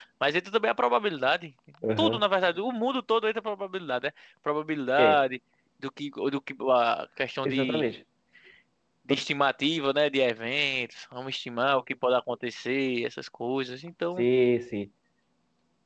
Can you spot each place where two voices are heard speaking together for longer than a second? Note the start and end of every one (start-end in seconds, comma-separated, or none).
none